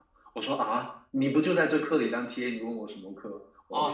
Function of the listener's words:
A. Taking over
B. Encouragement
A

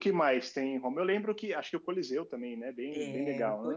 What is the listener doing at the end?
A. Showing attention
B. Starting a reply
B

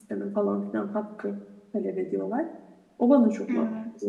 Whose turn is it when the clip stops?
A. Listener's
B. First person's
B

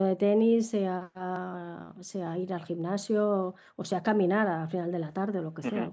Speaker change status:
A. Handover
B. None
A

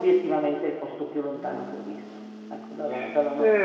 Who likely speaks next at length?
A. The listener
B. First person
A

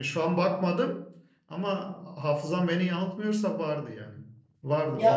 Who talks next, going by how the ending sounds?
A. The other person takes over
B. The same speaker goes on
A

